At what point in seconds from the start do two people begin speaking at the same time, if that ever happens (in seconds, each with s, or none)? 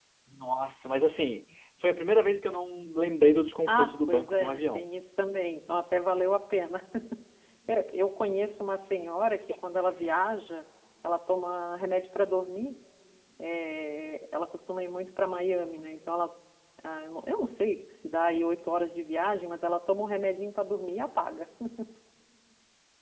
3.7 s